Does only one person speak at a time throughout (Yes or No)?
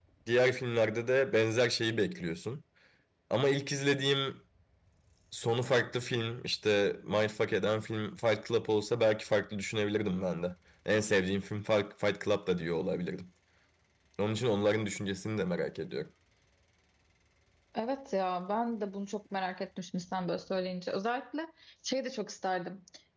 Yes